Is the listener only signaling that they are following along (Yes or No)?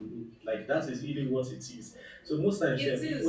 Yes